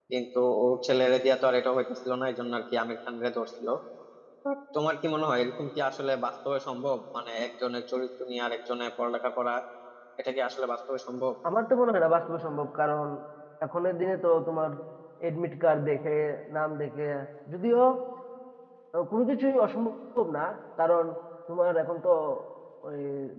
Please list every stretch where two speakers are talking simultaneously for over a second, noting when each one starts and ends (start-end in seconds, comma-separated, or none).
none